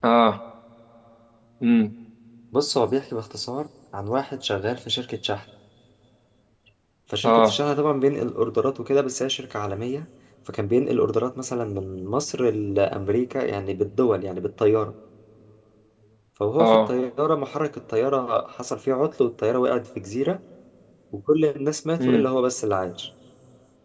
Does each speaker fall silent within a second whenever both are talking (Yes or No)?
Yes